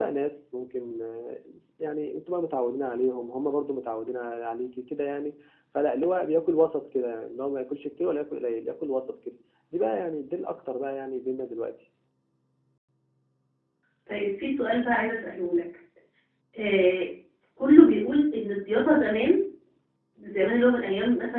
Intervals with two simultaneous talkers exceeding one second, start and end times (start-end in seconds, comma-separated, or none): none